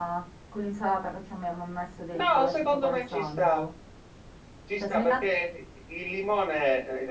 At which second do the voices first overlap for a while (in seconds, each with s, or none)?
2.1 s